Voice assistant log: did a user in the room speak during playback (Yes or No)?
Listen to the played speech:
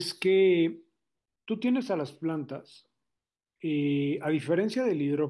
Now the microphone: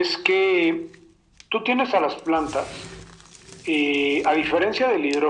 No